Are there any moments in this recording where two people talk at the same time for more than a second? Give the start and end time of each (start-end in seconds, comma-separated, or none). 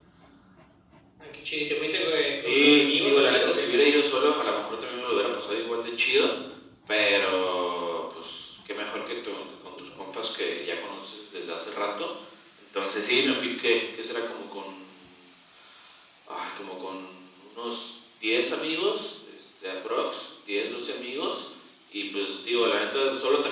2.4-3.7